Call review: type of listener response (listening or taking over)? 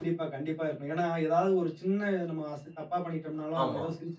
listening